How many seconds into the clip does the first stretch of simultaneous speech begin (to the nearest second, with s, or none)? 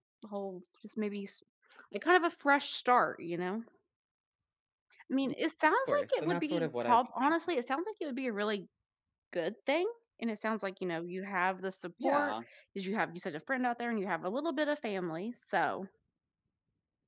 6 s